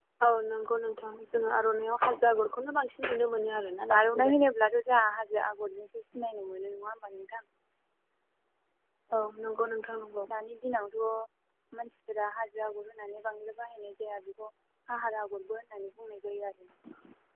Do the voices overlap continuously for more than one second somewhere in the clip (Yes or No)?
No